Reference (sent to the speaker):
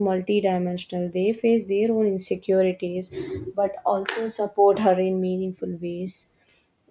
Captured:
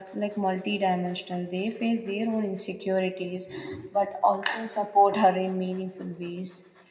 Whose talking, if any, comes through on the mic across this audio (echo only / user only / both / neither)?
echo only